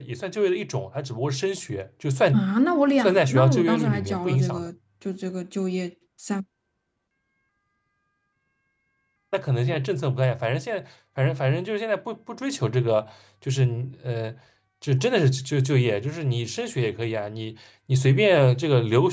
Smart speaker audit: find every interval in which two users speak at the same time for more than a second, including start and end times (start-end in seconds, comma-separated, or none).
3.0-4.7